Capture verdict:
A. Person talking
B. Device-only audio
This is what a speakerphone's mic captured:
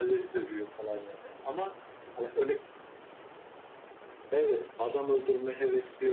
B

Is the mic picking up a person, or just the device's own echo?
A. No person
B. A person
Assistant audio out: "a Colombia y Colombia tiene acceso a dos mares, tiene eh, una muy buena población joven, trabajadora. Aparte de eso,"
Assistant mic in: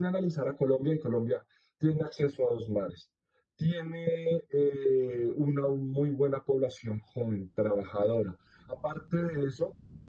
A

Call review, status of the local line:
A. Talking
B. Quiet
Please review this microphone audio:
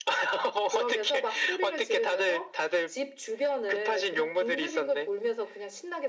B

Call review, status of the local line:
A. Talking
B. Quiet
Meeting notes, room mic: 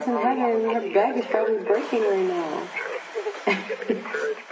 A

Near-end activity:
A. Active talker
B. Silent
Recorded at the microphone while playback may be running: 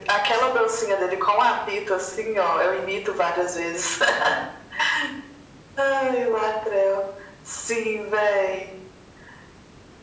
B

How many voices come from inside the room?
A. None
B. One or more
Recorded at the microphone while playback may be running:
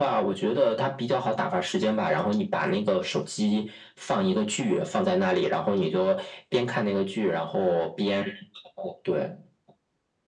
A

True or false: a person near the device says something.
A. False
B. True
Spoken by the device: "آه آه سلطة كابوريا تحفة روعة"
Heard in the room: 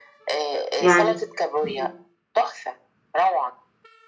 B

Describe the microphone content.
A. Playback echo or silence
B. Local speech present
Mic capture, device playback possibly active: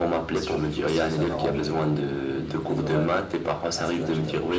B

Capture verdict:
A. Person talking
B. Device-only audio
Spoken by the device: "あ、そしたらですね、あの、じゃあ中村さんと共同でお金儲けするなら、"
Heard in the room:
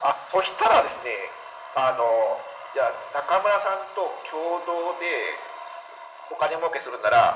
B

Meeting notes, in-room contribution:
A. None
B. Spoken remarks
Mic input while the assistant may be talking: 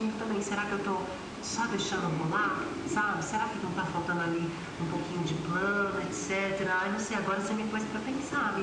A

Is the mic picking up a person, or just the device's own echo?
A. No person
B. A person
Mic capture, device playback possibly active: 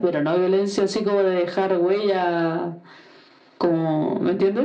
A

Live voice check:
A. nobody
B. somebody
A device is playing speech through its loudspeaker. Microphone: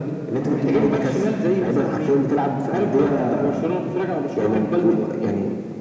A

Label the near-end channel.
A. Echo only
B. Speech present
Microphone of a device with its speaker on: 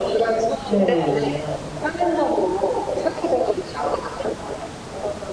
B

